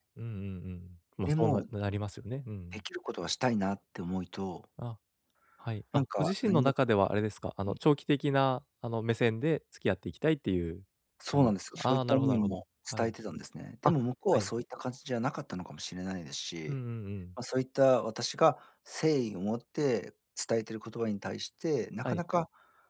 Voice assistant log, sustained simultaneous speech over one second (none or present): present